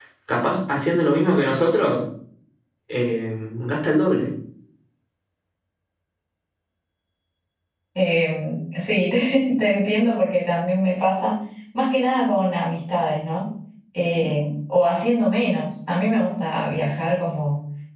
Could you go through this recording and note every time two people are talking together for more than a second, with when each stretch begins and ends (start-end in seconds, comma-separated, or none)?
none